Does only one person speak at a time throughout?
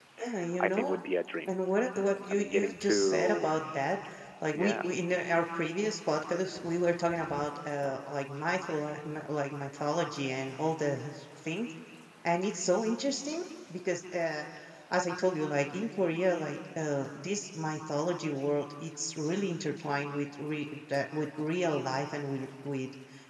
No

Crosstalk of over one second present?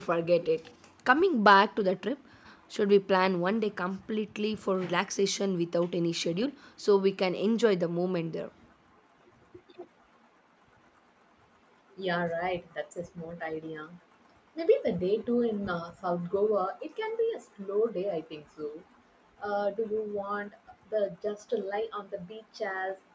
No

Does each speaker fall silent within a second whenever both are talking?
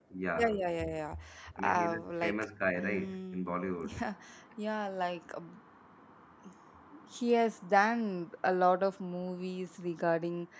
No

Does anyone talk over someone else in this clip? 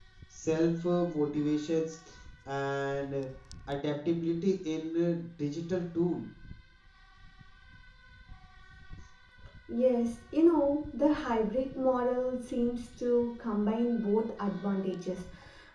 No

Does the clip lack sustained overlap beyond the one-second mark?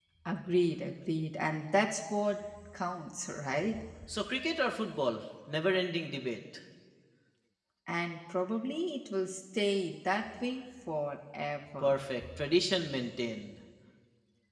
Yes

